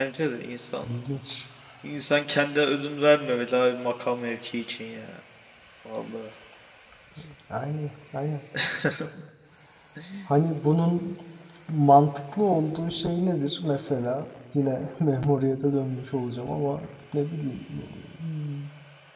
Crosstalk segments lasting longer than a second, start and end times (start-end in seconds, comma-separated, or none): none